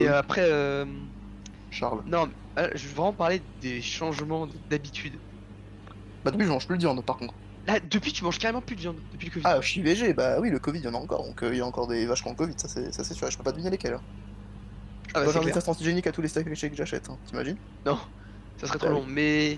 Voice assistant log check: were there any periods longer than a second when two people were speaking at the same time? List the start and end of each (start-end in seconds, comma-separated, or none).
none